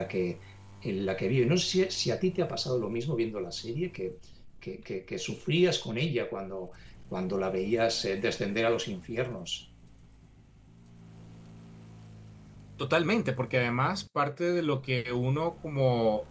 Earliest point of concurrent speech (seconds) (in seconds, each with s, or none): none